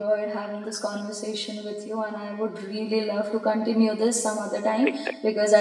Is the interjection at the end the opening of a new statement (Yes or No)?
No